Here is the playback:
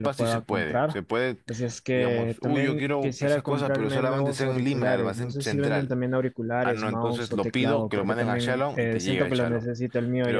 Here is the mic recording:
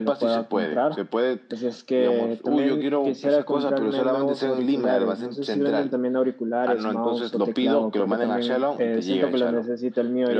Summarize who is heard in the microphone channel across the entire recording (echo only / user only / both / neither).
echo only